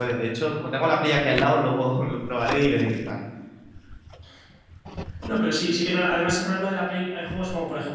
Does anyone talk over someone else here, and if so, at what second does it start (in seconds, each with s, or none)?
none